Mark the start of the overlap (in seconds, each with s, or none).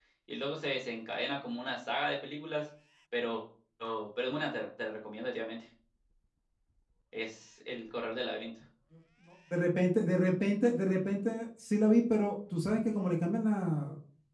none